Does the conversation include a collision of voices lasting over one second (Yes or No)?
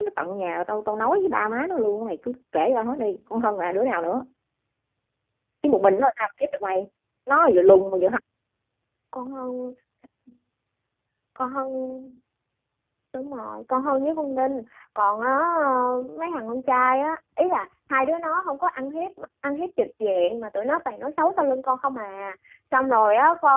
No